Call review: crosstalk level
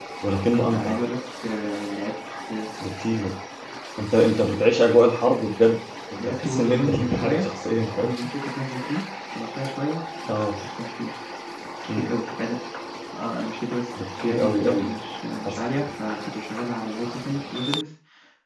present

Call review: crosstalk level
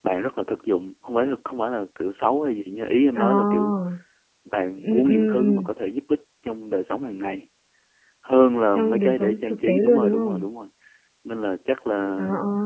present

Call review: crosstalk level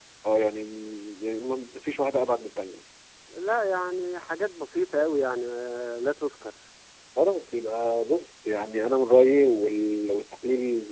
none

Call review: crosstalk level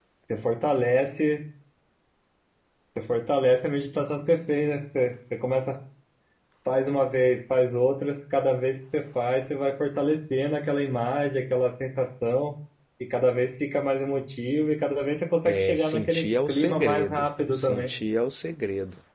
present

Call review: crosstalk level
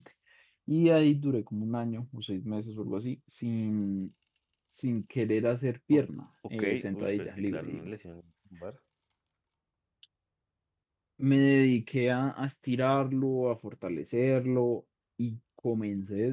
present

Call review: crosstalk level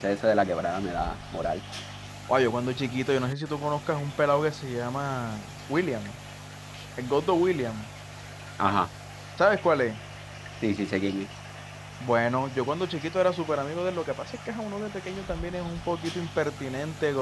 none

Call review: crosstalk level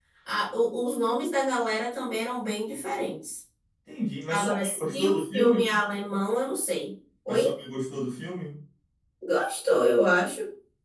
present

